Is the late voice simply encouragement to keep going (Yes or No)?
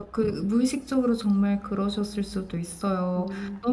Yes